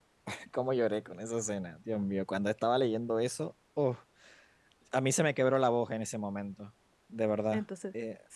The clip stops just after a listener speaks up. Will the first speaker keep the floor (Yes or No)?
No